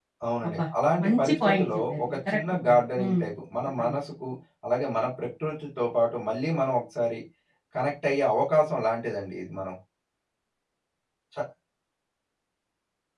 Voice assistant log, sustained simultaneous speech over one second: present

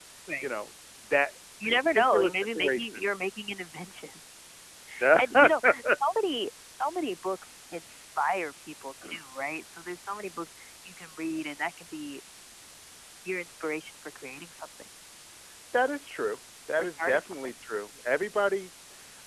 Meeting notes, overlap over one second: present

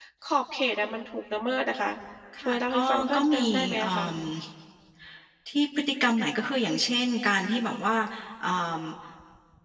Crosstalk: present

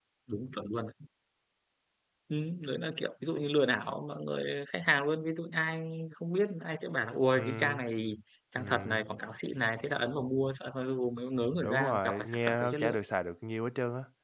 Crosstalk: present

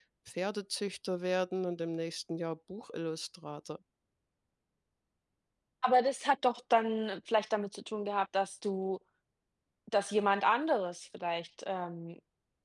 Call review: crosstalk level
none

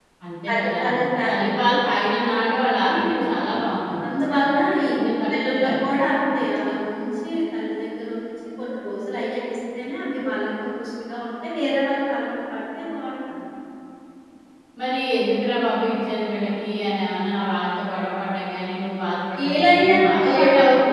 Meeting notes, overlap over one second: present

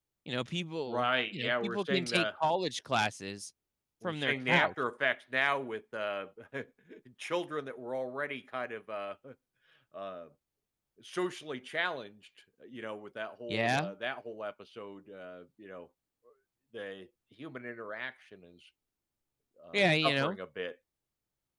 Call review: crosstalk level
present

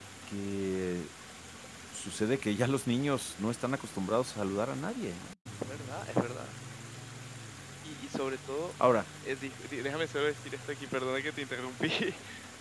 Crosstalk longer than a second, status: none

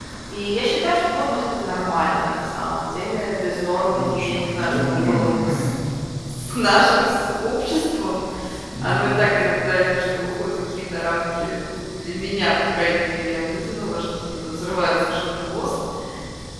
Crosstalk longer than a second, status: present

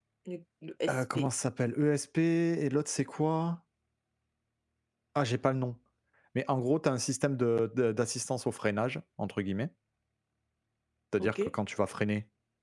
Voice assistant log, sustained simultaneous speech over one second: none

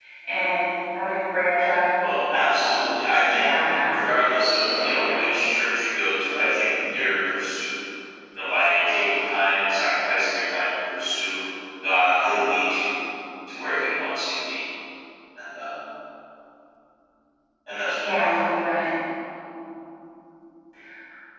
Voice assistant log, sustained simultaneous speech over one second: present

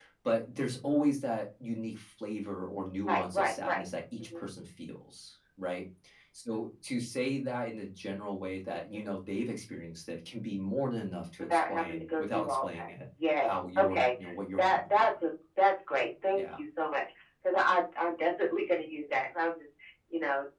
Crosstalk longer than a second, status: present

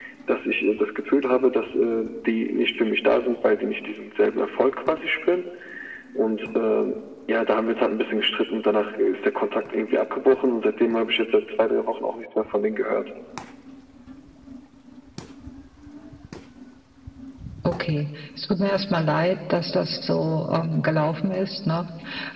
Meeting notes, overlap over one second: none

